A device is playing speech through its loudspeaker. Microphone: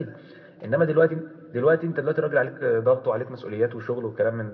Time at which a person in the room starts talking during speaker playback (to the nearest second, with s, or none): none